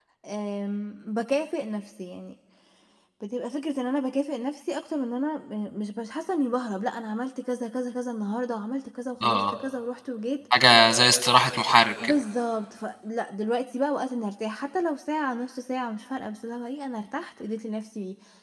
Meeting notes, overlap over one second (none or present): none